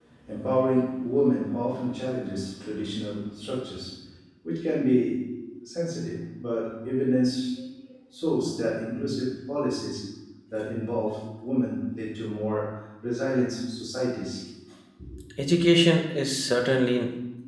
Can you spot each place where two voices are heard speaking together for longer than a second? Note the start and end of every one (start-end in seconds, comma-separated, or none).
none